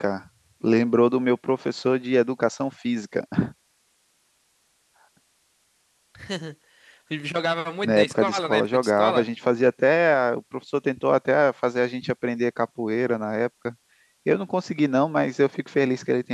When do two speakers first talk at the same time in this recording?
7.8 s

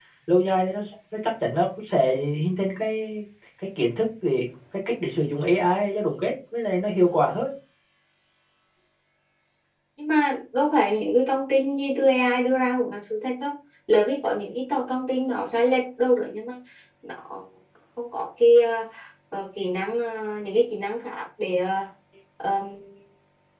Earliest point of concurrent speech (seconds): none

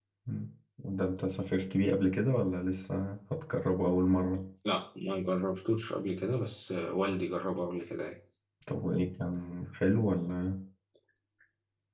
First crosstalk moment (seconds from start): none

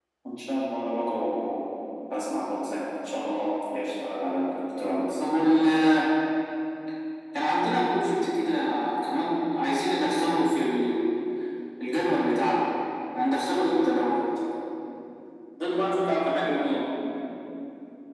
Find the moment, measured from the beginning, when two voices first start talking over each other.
none

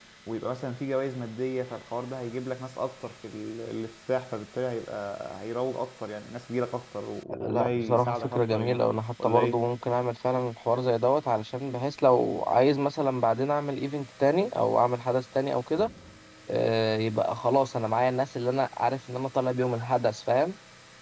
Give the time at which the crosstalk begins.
7.4 s

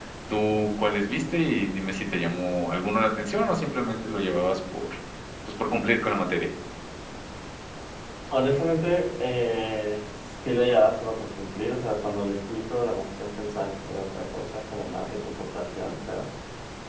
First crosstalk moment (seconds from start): none

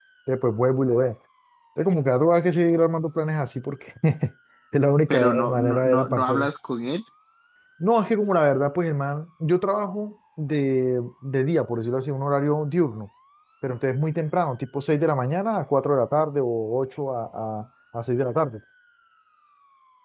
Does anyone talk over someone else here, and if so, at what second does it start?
5.1 s

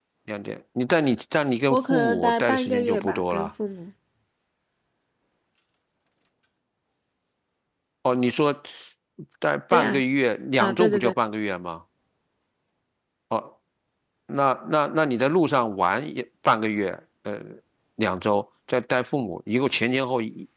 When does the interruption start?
1.7 s

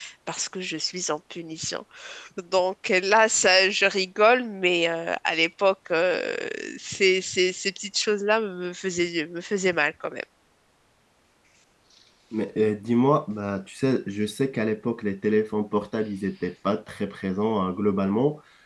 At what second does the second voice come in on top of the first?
none

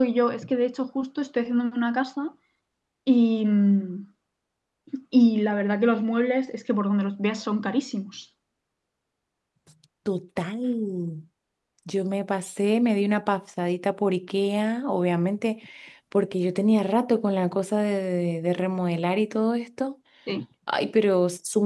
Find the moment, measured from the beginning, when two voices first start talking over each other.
none

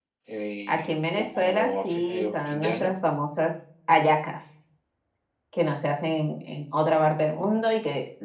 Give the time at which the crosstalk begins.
0.7 s

